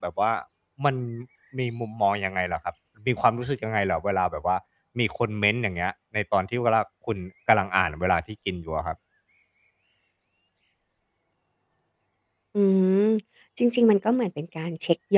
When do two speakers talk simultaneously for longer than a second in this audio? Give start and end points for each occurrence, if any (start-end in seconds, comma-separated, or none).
none